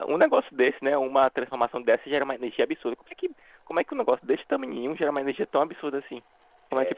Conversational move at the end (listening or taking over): taking over